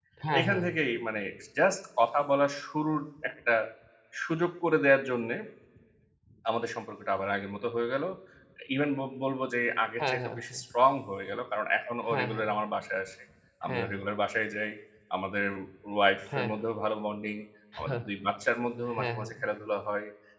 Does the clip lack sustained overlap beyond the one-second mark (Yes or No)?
Yes